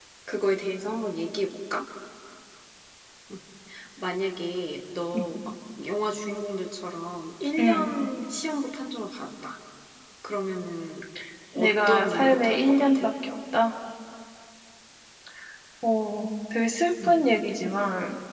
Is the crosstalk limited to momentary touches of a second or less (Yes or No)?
No